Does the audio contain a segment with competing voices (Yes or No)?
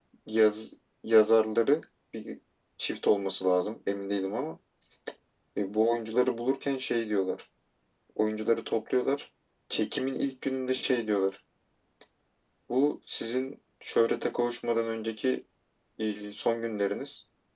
No